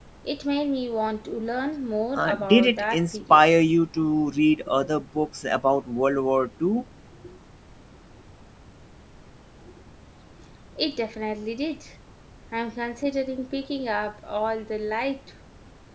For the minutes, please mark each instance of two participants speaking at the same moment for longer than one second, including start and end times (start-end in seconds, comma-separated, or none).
2.2-3.4